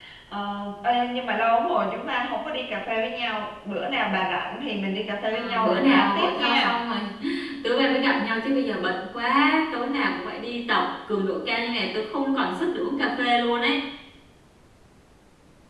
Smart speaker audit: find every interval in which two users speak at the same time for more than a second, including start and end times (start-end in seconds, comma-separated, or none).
5.3-6.7